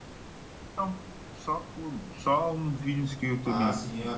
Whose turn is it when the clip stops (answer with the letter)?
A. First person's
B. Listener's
B